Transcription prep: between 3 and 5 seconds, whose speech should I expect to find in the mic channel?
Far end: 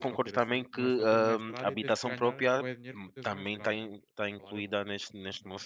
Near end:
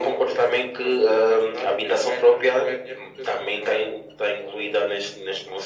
echo only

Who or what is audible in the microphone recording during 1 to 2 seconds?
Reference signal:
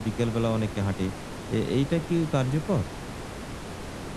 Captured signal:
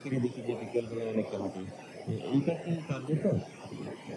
echo only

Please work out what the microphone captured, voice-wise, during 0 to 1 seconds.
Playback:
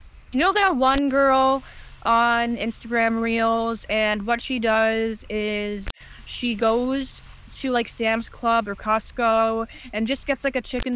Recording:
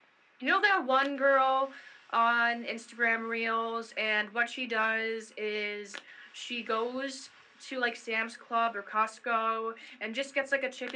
echo only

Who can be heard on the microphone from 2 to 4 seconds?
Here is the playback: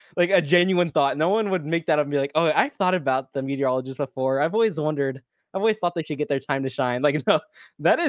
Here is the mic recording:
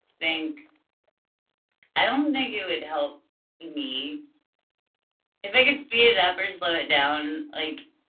user only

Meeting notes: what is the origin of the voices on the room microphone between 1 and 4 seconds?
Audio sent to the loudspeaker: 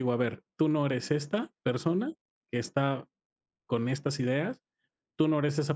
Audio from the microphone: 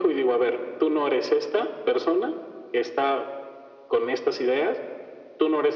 echo only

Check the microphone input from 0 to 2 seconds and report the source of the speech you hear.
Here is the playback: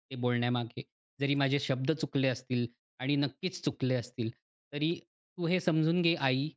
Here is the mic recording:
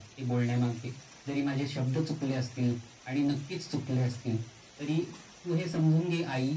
echo only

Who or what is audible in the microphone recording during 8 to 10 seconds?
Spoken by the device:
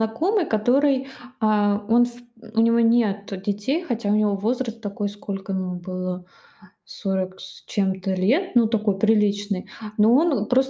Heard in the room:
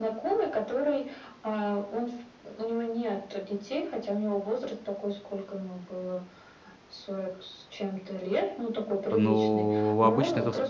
both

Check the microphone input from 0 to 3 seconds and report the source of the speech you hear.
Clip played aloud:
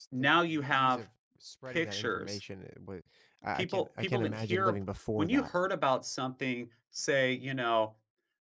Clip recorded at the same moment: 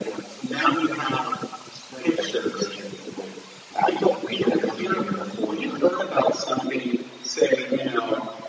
echo only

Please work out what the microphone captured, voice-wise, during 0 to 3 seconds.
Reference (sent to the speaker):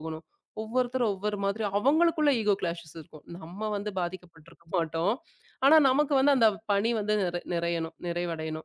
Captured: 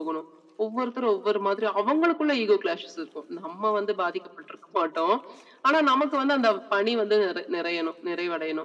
echo only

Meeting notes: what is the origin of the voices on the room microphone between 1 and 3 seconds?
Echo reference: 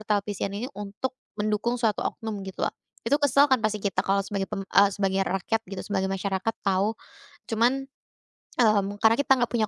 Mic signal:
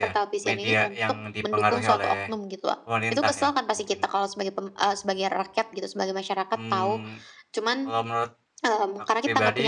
both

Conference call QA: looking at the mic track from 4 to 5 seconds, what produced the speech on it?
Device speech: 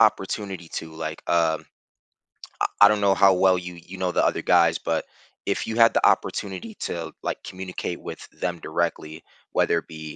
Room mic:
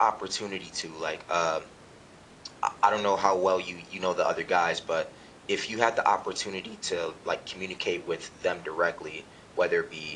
echo only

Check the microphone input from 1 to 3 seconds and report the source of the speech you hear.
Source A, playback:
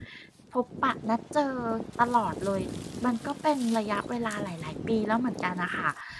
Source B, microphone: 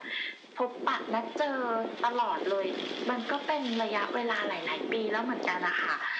echo only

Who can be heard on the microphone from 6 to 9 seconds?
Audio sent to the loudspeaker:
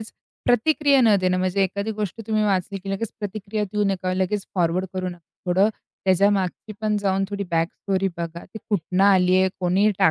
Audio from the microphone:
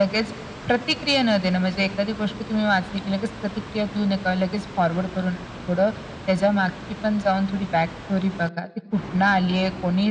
echo only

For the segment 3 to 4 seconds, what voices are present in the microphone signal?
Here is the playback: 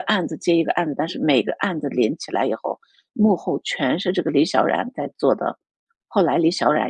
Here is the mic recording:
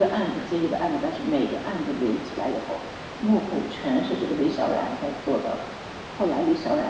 echo only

